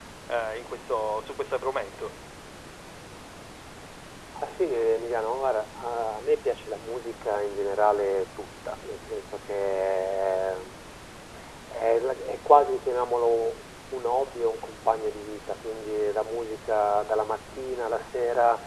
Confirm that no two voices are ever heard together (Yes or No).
Yes